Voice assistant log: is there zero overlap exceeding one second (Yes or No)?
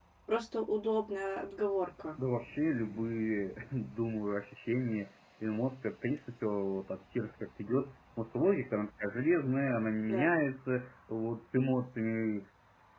Yes